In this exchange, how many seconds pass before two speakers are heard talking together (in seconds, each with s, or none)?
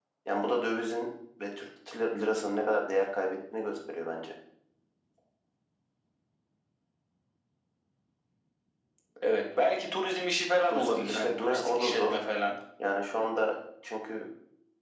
10.7 s